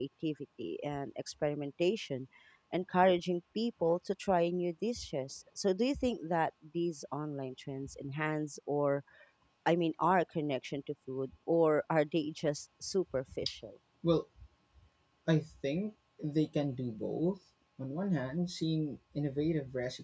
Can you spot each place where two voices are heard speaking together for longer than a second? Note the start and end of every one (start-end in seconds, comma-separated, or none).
none